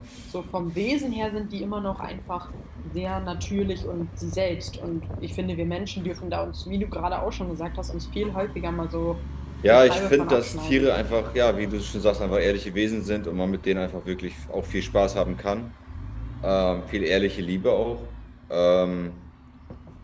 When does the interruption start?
9.6 s

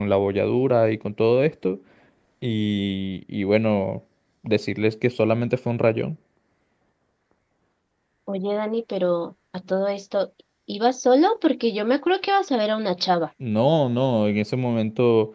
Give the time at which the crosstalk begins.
none

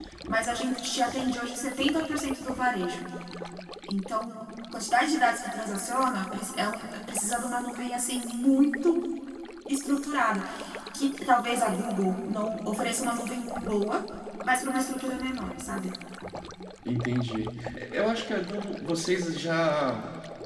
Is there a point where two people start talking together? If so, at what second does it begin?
none

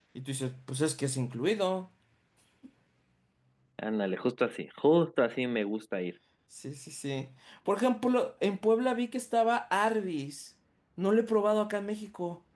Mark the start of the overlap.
none

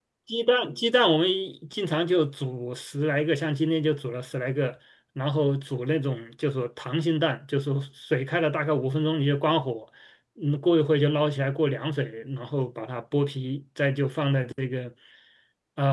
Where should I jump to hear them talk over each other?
none

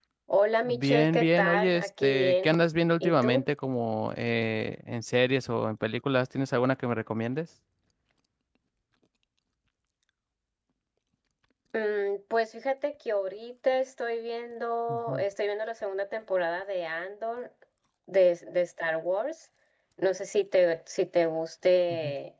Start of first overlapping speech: 0.7 s

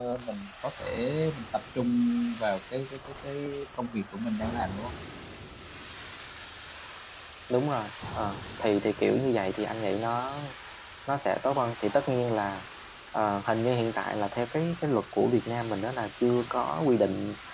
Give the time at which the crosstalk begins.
none

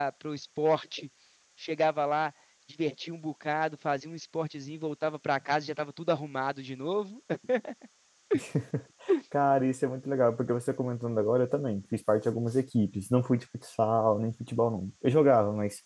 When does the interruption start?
none

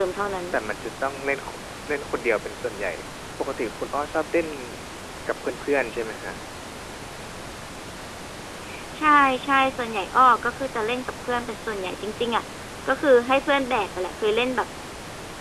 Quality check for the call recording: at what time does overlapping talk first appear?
none

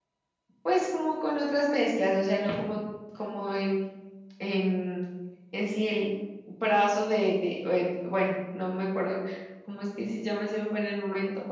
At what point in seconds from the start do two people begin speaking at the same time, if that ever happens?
none

